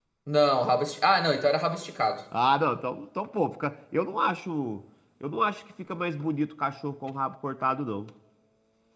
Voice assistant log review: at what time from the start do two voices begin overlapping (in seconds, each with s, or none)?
none